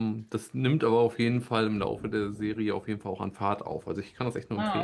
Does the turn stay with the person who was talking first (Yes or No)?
No